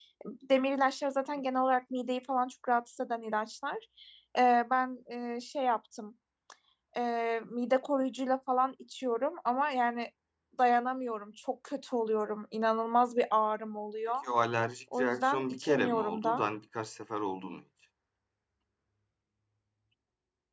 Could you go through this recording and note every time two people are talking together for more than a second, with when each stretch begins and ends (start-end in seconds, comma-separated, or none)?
14.9-16.5